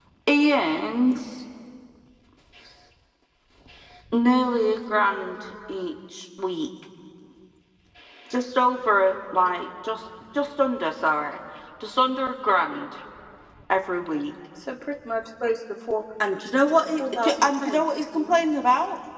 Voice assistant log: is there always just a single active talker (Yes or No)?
No